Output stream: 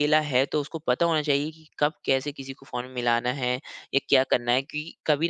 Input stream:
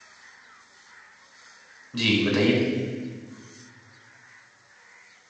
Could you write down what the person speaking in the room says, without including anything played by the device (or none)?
जी, बताइए ना।